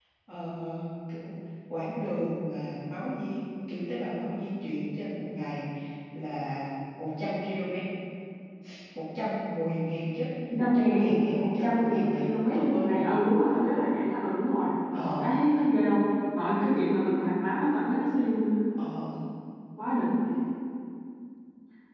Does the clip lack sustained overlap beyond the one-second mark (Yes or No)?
No